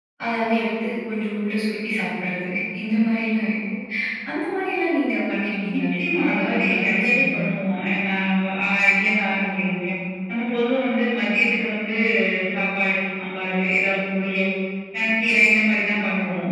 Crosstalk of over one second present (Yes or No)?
Yes